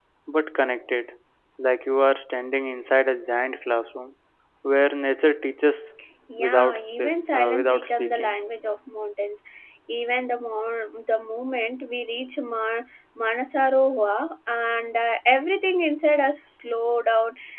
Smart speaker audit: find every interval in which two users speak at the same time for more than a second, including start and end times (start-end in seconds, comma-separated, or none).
6.4-8.4